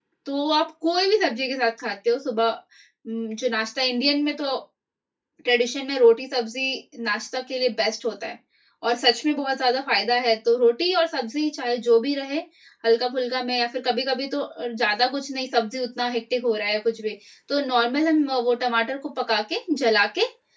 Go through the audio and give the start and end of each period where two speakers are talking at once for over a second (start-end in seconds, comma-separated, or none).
none